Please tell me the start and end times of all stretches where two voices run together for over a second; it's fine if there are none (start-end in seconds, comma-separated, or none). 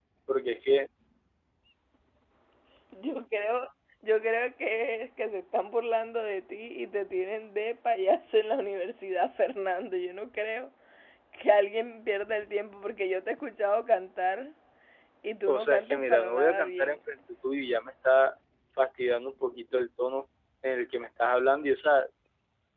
15.5-17.0